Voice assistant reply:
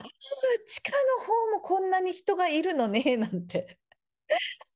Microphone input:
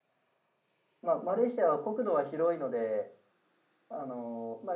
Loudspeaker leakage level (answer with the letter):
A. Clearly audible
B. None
B